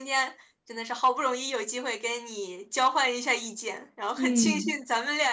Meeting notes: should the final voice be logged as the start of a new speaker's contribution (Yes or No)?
No